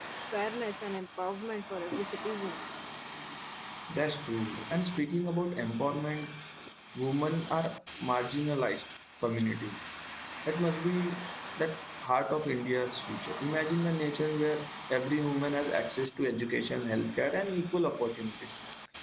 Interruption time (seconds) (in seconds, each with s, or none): none